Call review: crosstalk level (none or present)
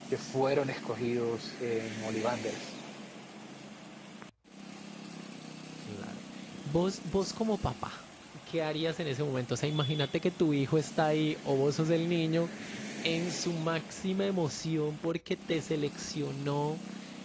none